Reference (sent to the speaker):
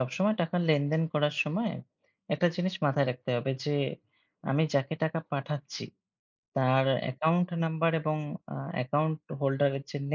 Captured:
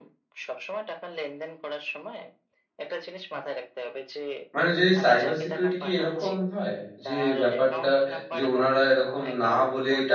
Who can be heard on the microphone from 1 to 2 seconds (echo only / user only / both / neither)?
echo only